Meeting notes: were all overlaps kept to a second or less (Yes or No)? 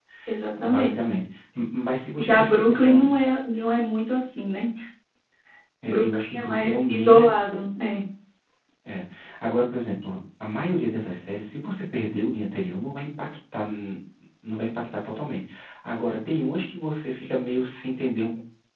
No